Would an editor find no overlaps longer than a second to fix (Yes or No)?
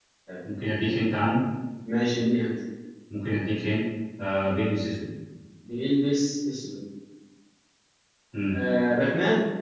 Yes